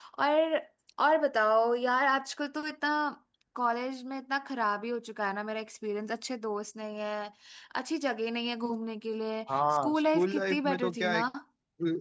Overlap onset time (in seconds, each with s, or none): 9.5 s